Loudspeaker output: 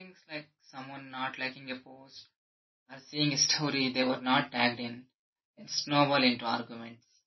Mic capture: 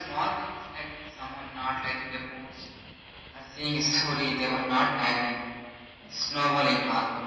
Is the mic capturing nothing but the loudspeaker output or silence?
Yes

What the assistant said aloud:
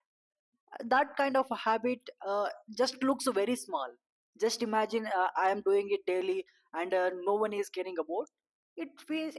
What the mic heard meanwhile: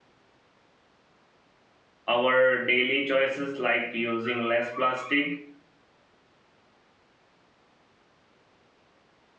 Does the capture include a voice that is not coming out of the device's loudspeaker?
Yes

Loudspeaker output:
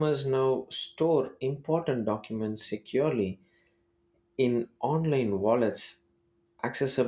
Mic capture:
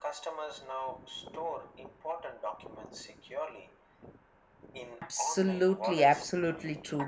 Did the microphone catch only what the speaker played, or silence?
No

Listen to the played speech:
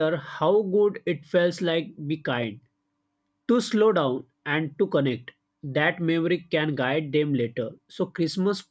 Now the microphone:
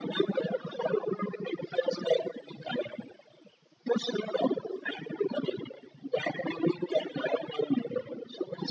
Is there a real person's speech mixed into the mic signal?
No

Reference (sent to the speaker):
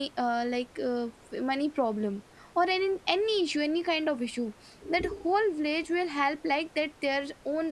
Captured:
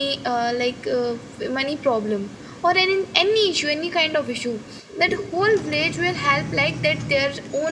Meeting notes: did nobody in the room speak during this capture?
Yes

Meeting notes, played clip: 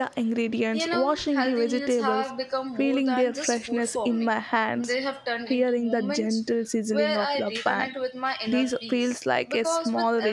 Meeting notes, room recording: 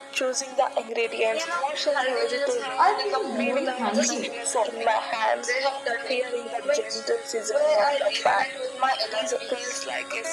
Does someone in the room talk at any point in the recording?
Yes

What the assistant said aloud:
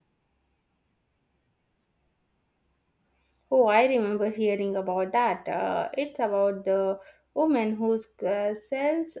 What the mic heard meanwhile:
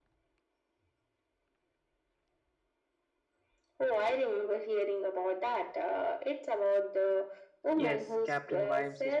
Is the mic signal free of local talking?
No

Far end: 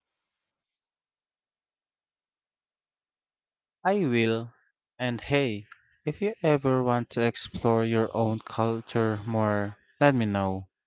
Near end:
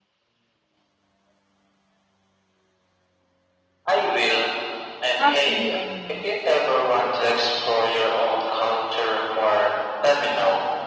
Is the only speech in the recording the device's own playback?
No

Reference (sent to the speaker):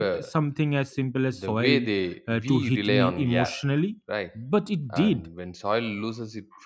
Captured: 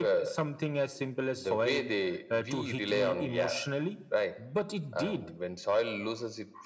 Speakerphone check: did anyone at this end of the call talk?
No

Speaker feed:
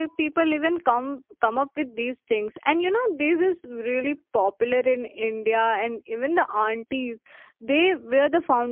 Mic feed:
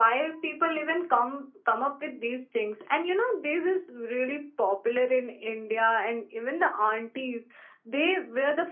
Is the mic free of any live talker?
Yes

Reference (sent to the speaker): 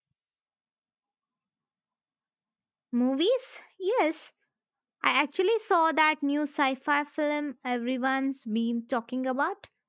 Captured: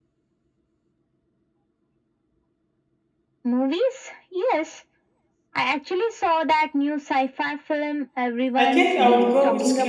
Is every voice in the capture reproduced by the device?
No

